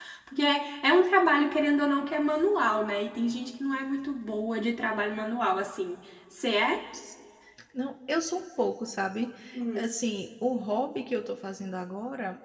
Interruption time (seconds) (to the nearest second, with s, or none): none